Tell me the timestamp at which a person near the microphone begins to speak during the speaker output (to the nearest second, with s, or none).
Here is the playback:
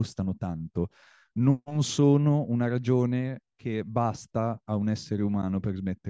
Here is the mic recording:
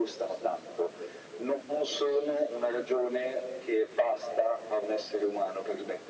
none